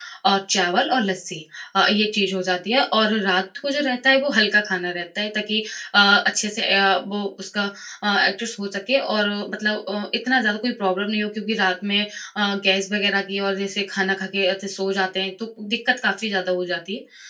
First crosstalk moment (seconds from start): none

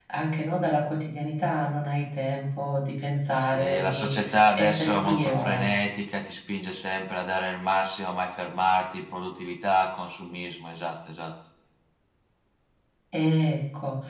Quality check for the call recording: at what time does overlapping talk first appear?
3.5 s

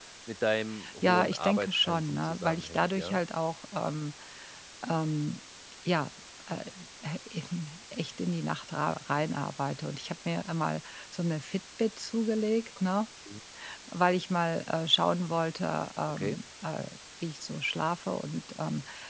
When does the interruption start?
1.0 s

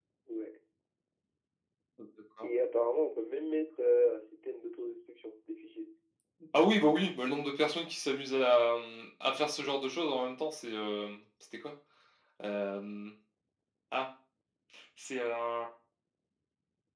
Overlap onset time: none

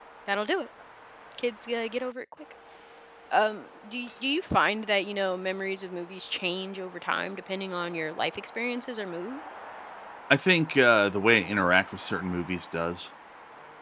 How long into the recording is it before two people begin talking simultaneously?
none

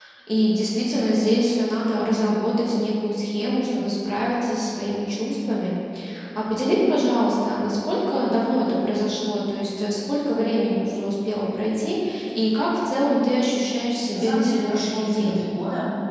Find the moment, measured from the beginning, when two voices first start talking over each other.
14.1 s

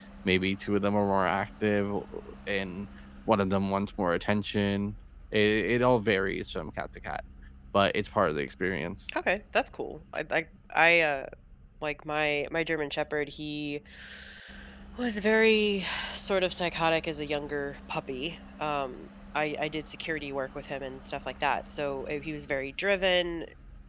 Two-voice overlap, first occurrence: none

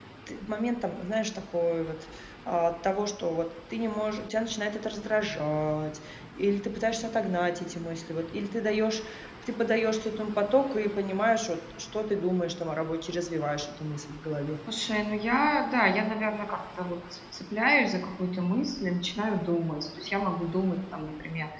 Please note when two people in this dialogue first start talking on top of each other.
none

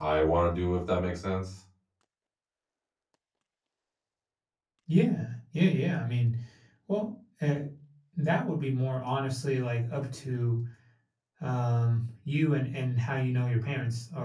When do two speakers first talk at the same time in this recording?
none

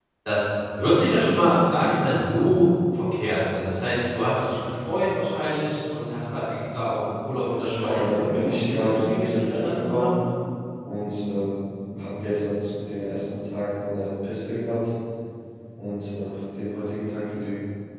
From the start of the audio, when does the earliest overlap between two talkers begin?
7.7 s

